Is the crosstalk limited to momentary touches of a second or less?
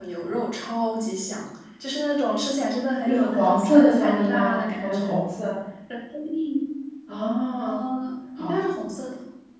No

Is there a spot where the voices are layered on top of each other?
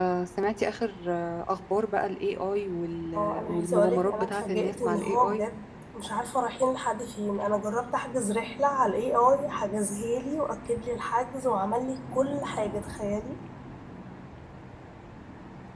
Yes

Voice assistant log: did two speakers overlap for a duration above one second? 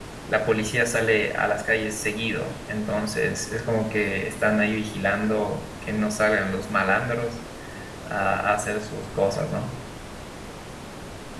No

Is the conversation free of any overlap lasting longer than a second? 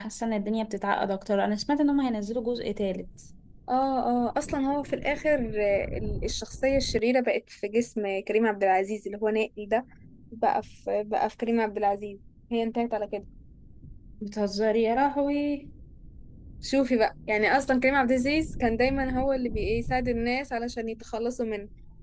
Yes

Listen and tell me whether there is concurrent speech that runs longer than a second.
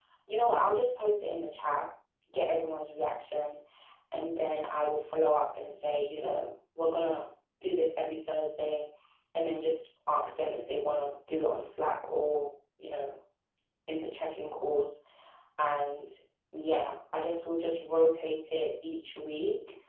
No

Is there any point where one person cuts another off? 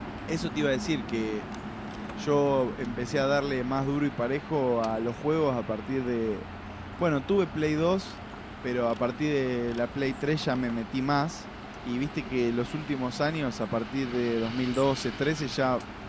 No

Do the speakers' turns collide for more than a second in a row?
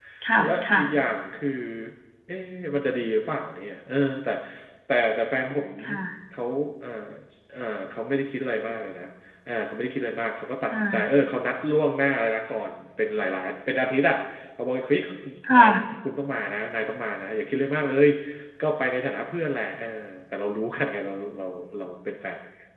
No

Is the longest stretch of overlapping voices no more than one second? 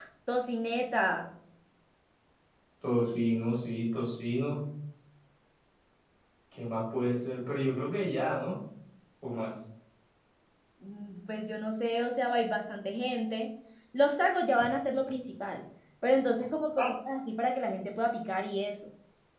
Yes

